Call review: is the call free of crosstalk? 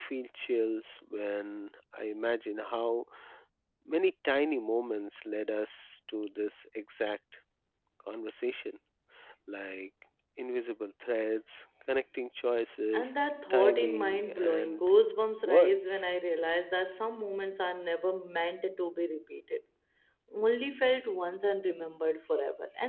No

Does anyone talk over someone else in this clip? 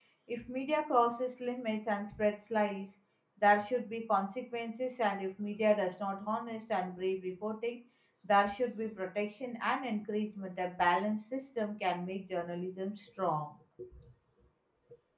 No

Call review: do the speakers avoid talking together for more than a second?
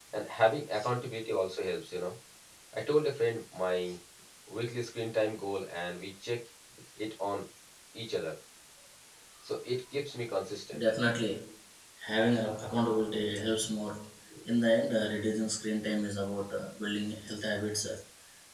Yes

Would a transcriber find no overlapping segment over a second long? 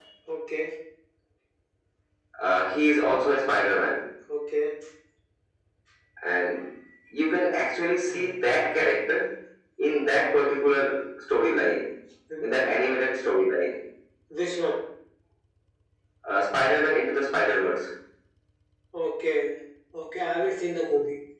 Yes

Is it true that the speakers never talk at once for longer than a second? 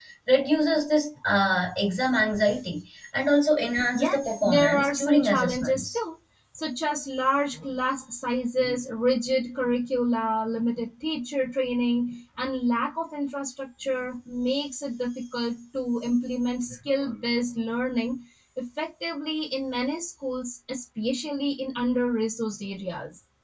No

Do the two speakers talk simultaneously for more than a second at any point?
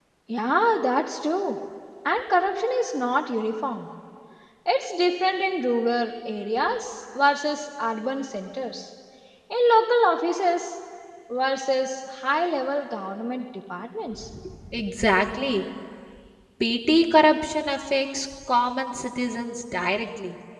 No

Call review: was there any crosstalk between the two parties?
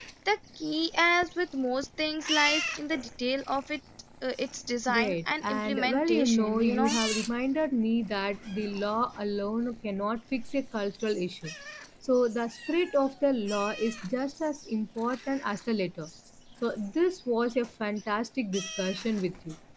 Yes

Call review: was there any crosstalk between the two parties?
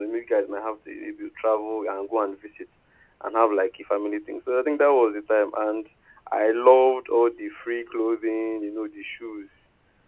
No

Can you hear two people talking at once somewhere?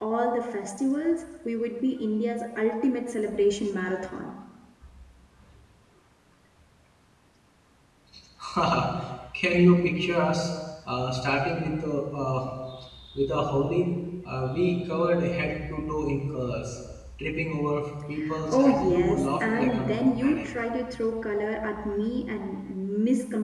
Yes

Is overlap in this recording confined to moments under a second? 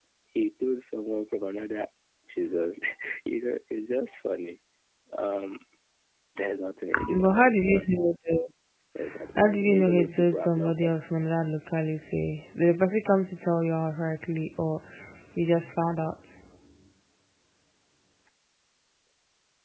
No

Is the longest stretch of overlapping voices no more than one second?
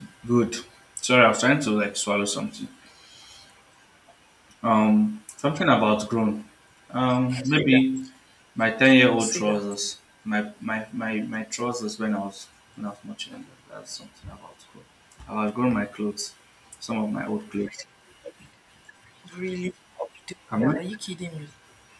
Yes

